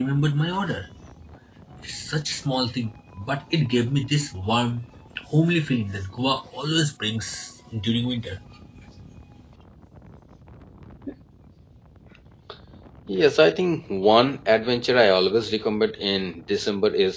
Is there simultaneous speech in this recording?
No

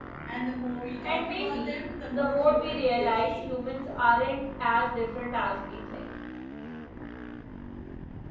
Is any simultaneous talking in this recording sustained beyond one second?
Yes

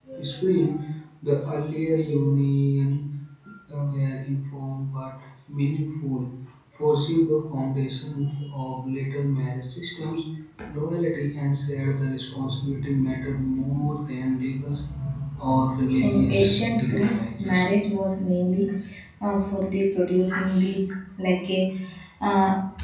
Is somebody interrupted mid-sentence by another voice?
Yes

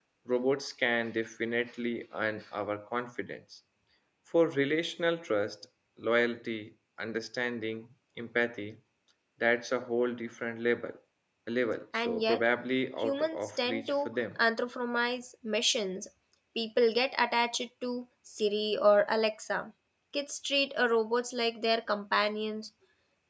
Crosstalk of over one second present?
Yes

